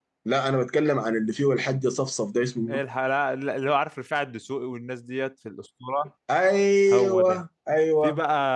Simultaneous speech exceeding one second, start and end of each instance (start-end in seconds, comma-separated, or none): none